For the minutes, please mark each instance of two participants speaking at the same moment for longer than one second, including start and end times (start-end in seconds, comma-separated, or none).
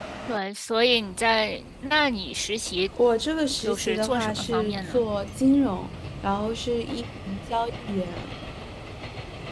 3.6-5.0